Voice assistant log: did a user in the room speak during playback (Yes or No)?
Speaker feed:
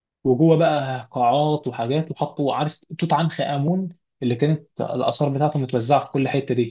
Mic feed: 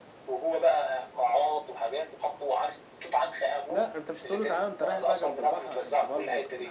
Yes